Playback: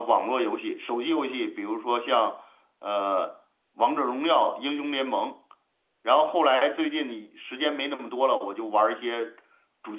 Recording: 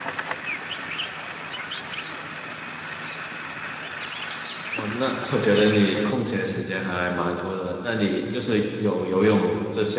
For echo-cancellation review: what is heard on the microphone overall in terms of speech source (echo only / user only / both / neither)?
user only